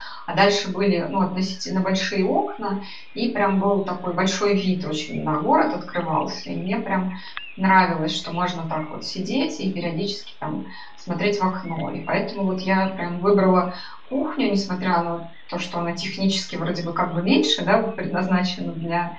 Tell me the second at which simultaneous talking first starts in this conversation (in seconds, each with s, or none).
none